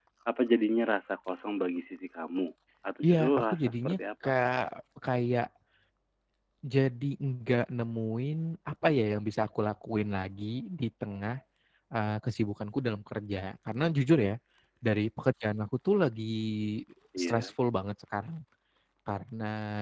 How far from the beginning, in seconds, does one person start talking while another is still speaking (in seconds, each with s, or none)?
3.0 s